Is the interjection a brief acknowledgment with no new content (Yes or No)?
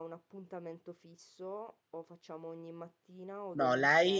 No